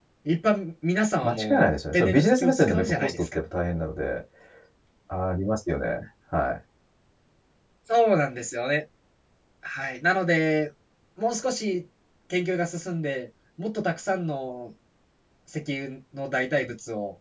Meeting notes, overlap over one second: present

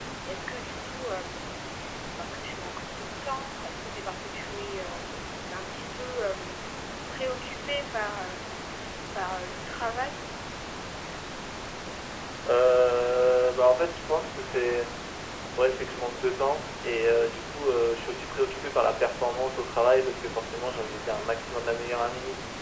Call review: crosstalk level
none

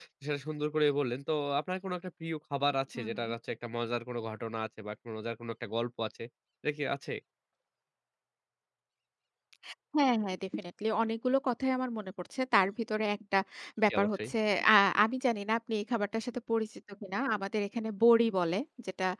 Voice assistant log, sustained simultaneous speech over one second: none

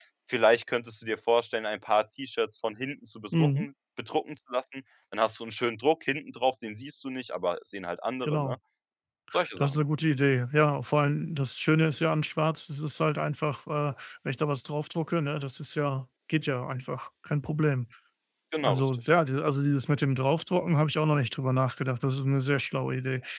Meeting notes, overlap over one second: none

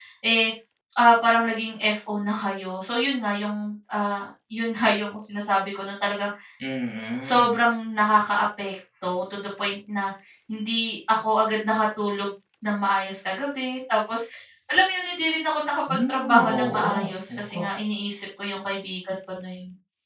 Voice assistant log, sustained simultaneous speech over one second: present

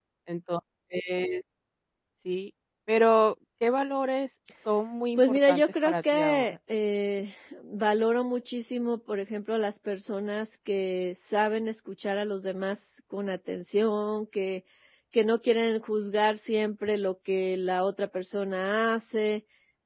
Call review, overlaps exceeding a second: present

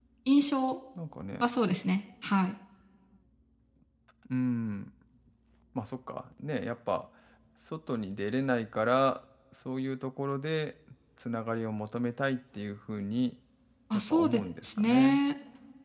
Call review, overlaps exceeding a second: present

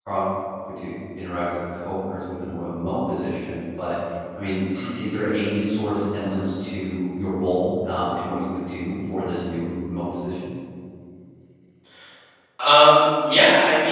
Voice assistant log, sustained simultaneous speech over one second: none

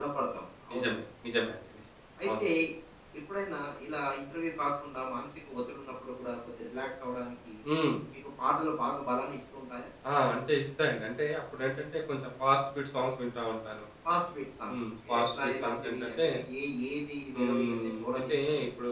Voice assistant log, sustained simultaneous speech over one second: present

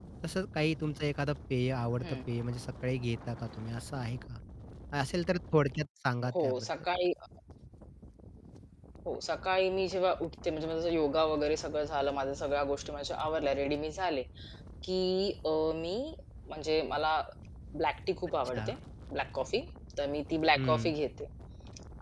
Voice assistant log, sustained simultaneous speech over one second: none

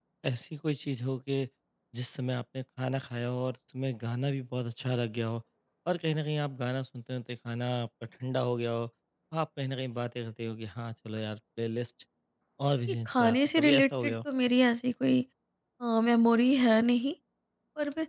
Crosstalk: present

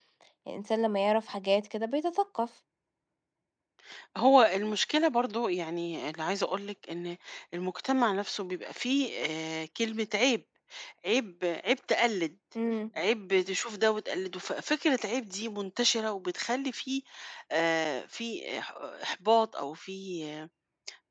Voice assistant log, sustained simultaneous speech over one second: none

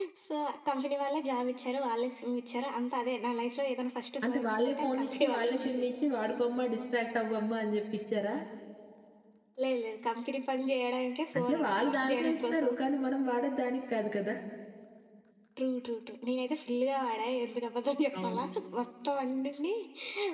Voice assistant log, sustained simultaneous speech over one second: present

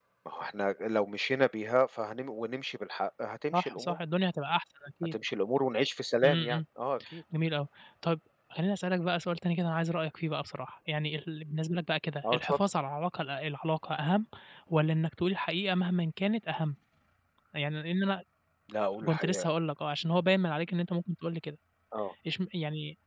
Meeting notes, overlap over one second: none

